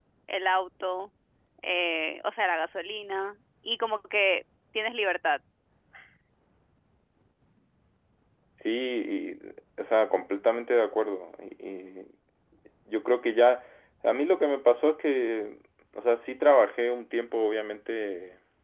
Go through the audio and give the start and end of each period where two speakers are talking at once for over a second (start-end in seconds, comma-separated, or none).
none